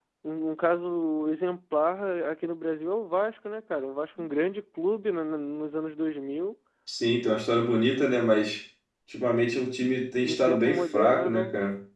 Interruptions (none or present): present